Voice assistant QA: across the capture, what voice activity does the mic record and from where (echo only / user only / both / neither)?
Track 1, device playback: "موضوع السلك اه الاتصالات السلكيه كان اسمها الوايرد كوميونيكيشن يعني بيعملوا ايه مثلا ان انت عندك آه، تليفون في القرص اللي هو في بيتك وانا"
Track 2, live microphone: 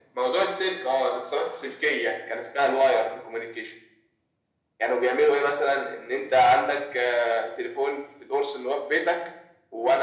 echo only